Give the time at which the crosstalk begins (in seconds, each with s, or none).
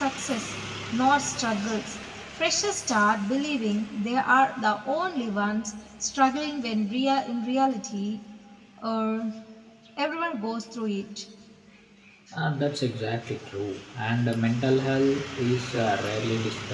none